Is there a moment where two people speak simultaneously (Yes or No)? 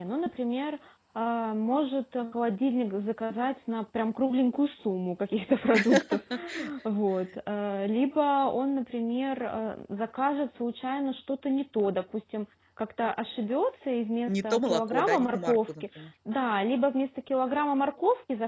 Yes